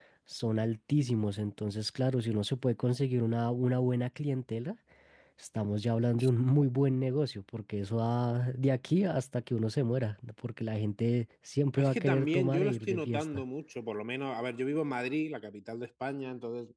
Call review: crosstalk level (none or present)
present